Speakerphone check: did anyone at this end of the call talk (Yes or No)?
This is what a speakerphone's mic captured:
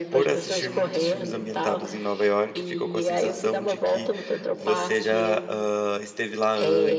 Yes